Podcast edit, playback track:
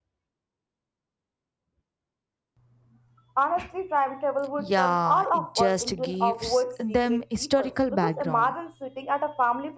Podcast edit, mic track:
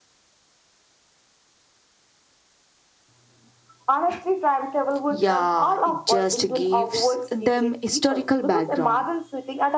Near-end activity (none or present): none